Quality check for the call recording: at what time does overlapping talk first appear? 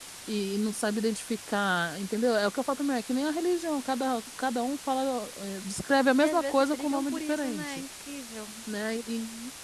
6.2 s

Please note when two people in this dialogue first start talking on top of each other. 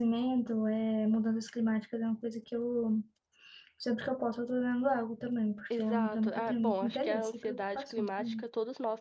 5.7 s

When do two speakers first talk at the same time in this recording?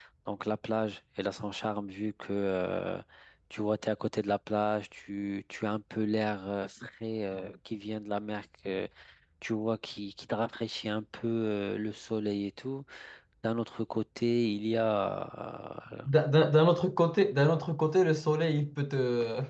none

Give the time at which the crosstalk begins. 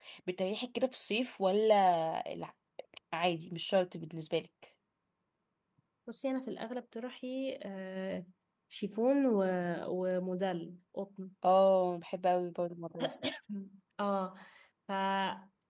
none

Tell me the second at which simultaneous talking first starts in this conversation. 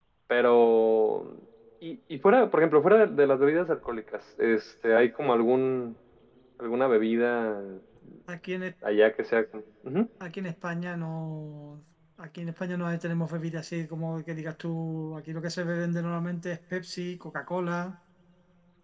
none

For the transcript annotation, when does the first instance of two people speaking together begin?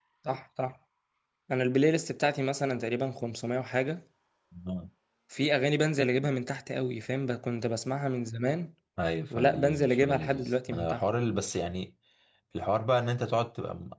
9.3 s

